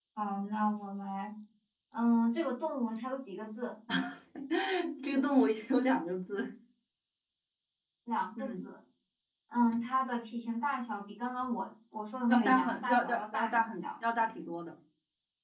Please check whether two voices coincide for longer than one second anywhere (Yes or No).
Yes